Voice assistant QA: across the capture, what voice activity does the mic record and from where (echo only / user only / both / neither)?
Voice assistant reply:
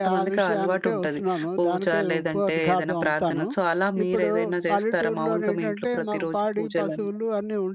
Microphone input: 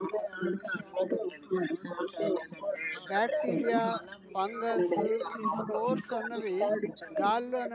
both